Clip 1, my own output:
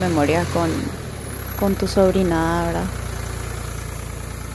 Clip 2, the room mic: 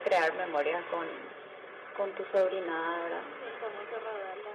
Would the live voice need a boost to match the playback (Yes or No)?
Yes